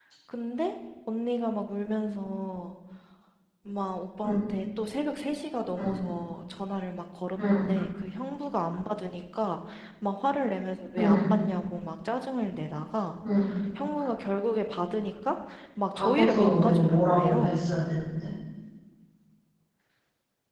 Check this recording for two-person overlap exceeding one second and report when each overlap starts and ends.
15.9-17.6

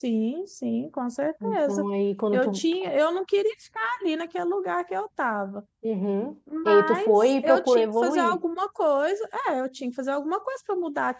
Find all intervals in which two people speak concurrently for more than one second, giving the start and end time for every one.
6.7-8.4

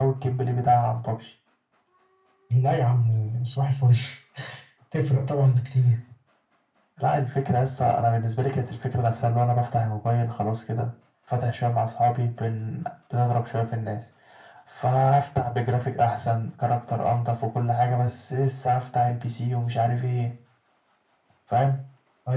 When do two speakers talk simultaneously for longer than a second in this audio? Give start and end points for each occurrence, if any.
none

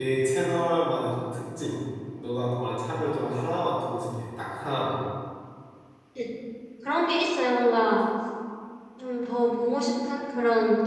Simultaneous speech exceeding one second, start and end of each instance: none

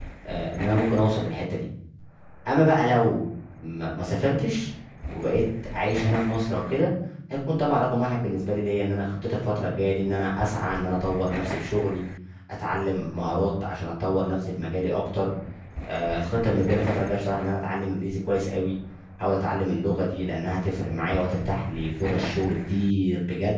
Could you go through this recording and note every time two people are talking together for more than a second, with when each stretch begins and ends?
none

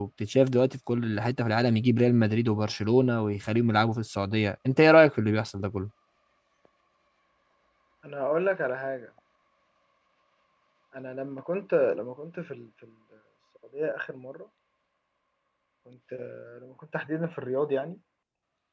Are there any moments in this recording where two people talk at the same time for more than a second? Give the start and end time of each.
none

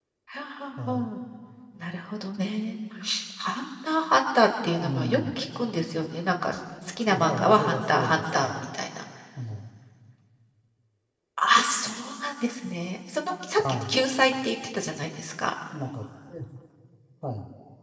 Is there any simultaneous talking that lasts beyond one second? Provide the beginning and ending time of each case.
7.1-8.6

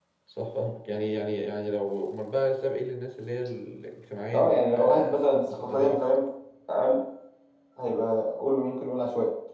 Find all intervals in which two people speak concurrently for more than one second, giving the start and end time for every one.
4.3-6.1

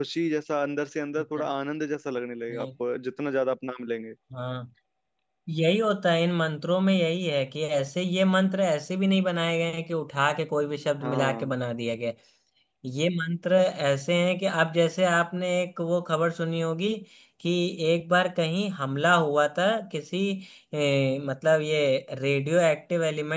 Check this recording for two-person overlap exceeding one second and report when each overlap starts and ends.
none

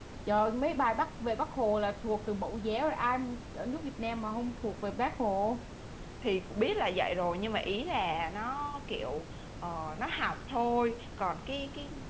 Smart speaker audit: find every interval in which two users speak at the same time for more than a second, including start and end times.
none

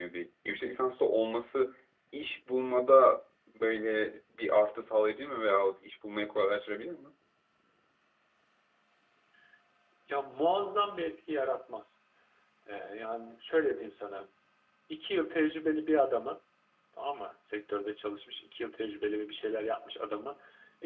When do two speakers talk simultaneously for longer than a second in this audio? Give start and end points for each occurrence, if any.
none

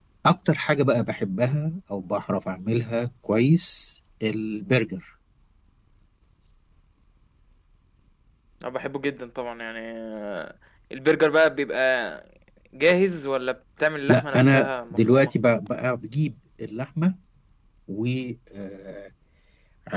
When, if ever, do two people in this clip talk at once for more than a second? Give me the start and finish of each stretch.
14.1-15.3

